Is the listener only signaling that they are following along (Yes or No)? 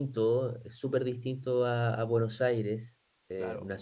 Yes